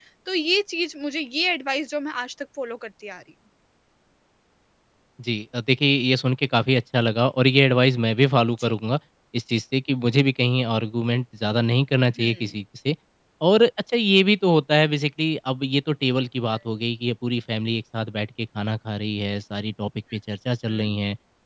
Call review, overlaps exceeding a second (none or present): none